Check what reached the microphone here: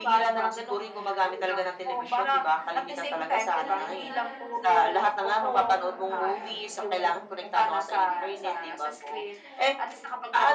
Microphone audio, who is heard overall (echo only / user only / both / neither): both